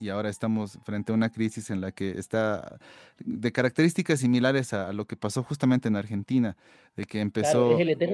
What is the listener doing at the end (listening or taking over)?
taking over